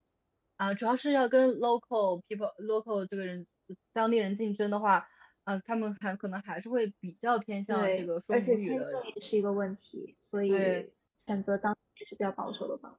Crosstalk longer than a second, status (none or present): present